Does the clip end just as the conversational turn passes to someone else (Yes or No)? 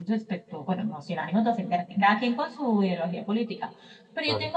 No